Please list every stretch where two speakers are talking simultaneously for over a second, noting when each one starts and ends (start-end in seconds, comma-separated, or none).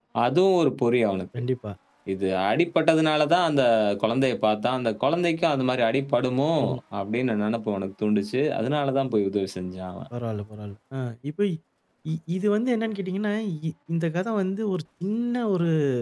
none